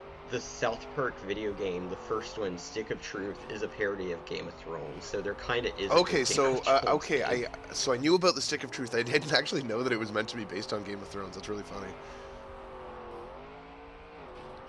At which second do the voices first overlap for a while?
5.9 s

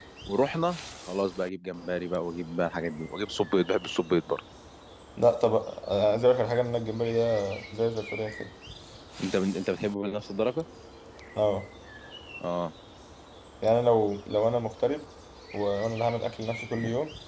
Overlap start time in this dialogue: none

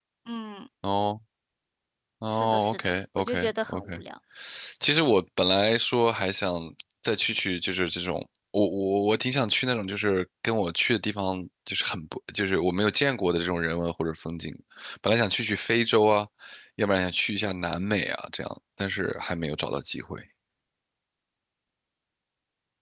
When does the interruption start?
2.3 s

